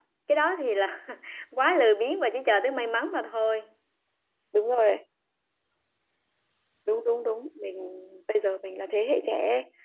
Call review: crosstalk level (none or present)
none